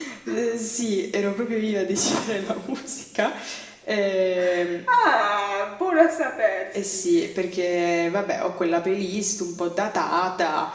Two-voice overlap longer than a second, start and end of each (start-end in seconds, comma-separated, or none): none